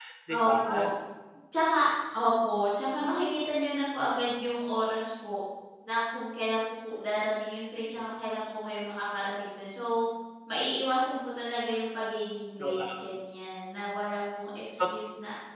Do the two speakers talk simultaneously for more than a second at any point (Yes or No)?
No